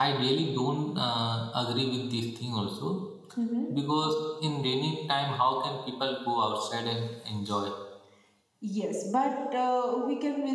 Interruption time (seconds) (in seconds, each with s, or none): none